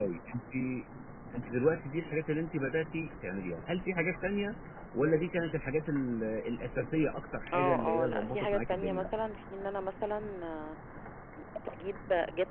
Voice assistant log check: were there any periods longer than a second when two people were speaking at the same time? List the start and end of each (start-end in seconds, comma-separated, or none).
7.5-9.1